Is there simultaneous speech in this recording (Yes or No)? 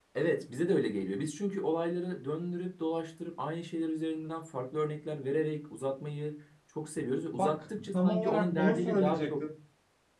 Yes